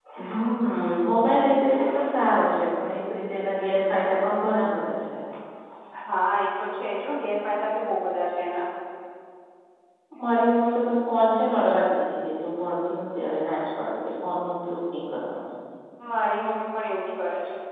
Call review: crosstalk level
none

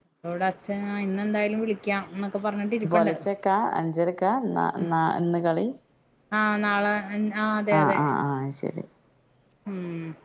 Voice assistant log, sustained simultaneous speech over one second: none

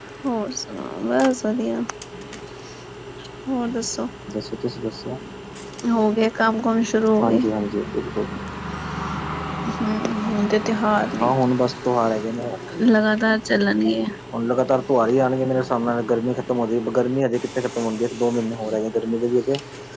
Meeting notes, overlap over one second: none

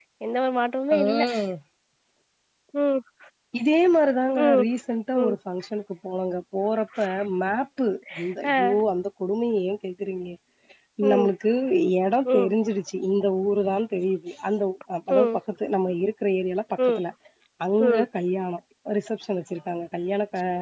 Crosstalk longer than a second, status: none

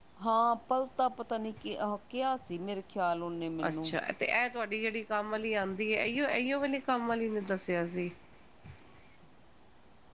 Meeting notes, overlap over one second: none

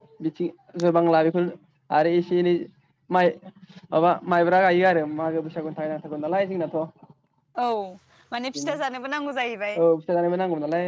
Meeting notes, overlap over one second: none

